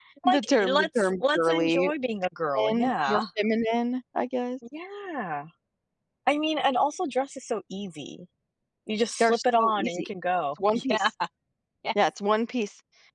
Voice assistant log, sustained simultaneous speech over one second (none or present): present